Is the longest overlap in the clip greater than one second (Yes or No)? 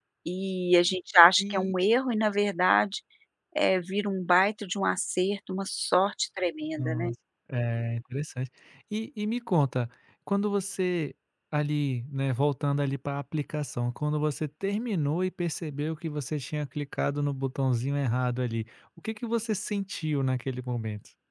No